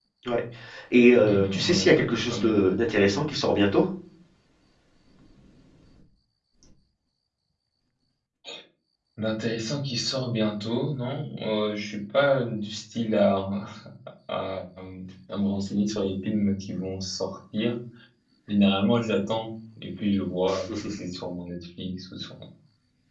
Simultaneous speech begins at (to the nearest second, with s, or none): 1 s